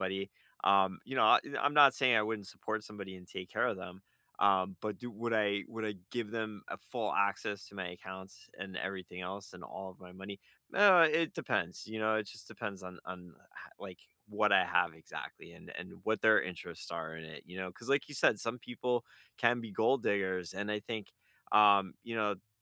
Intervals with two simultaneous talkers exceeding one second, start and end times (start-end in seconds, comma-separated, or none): none